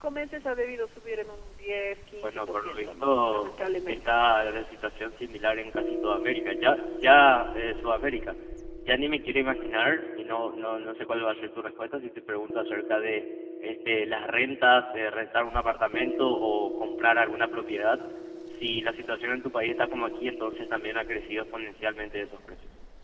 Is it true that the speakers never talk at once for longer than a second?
No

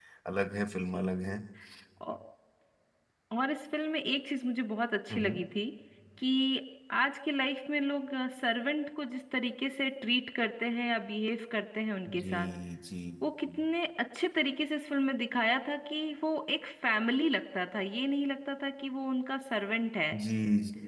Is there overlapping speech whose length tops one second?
No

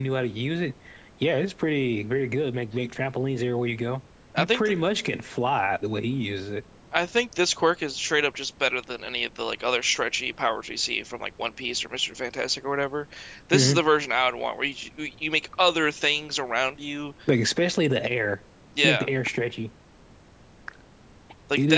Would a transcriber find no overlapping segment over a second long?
Yes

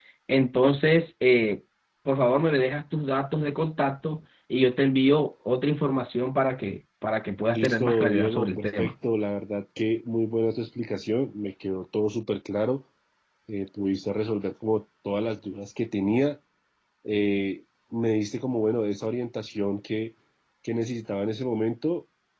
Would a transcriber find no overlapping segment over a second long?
No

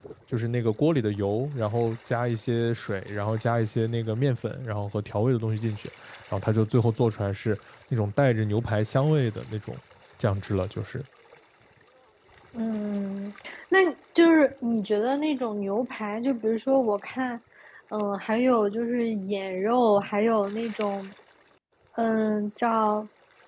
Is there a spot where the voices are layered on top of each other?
No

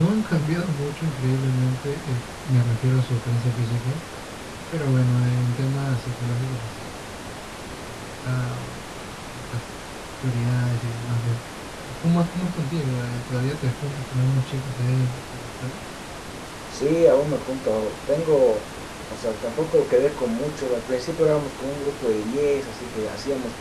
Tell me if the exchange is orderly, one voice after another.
Yes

